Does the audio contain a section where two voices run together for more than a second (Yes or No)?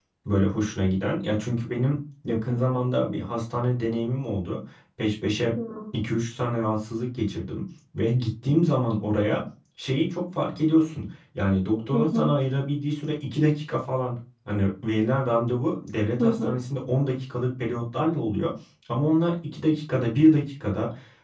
No